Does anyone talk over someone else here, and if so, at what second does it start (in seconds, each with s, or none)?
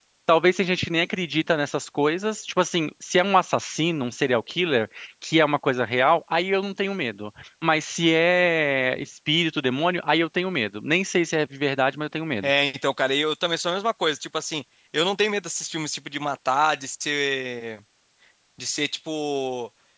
none